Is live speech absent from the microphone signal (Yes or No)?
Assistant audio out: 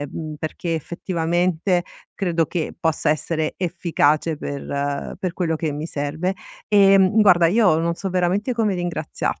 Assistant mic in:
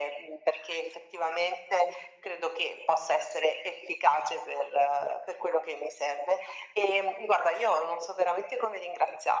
Yes